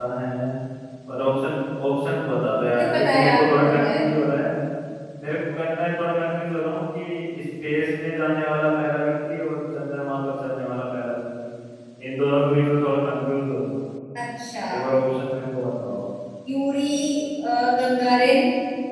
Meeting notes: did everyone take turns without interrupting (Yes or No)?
No